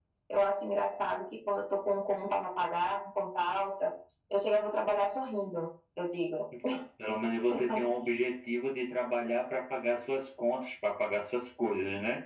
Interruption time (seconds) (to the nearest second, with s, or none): none